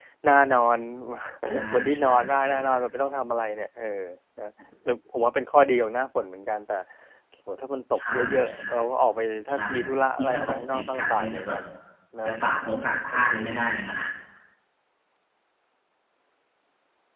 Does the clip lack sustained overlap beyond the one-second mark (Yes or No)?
No